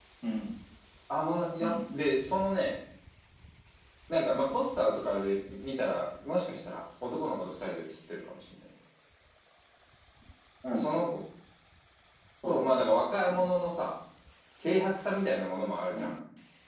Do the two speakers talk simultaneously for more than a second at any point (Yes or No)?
No